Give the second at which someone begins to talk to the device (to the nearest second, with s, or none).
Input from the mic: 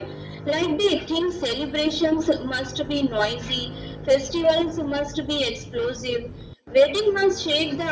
none